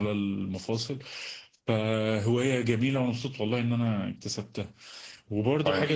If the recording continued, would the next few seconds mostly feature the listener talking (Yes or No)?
No